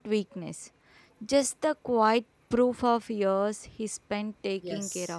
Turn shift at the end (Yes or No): Yes